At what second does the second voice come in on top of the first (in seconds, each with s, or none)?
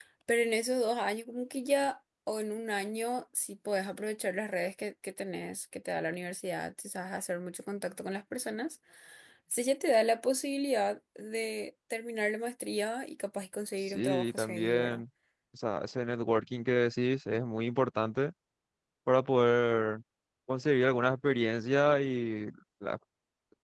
13.8 s